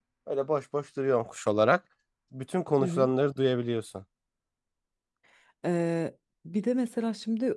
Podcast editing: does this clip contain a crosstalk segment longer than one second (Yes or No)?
No